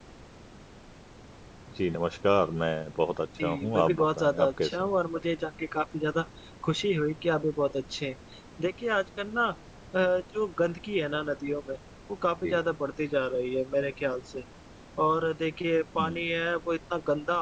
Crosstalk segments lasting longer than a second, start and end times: 3.4-4.9

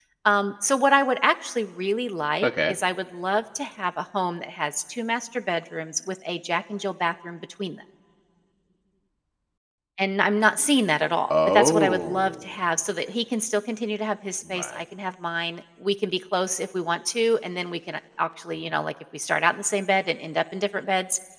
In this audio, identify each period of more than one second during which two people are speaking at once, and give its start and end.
11.3-12.5

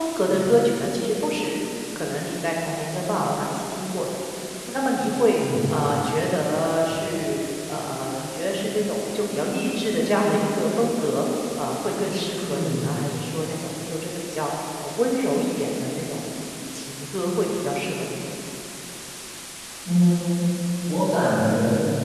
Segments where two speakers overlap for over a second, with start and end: none

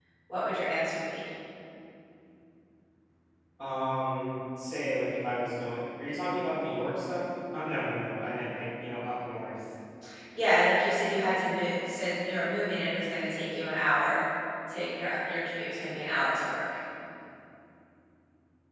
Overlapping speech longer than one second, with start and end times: none

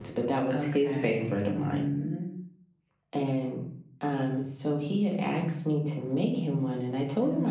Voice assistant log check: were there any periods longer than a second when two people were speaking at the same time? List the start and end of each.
0.5-1.9

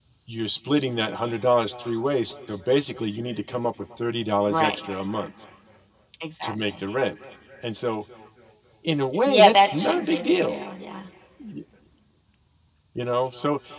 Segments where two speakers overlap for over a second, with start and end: 9.3-10.6

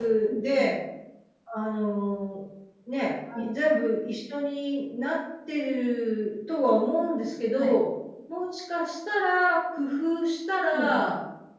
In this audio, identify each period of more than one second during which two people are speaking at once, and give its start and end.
none

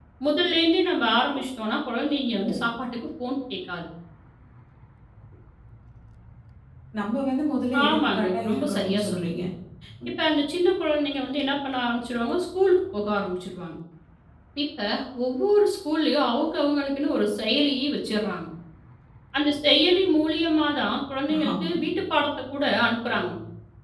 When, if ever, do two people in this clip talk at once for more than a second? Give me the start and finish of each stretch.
7.8-9.4

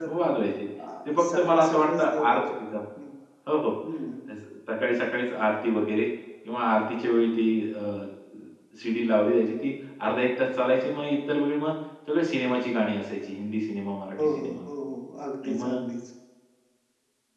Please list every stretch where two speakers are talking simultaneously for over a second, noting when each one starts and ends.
1.1-2.4

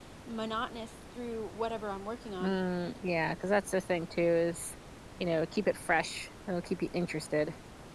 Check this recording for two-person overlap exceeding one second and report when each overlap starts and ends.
none

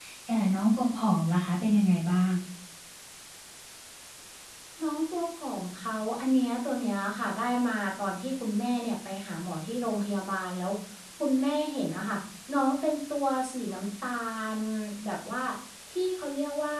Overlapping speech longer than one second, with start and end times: none

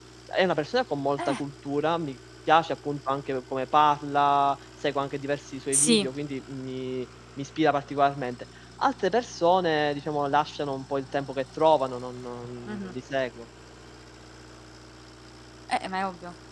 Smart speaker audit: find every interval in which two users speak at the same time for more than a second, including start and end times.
none

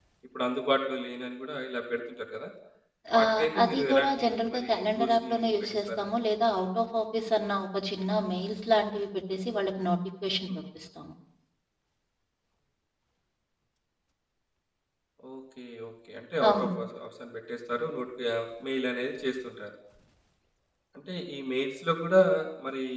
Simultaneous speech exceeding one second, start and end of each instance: 3.2-6.0

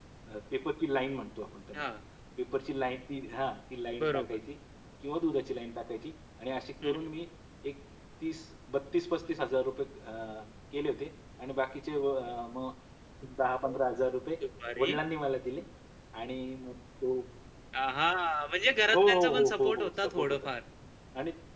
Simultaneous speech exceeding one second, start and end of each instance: 18.9-20.4

